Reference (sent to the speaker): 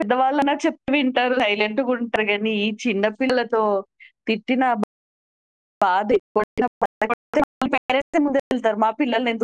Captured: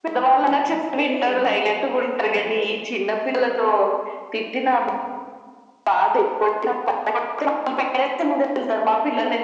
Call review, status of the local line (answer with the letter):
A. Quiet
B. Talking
B